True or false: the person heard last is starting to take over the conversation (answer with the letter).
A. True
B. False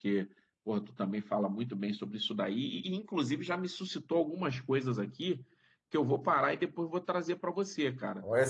A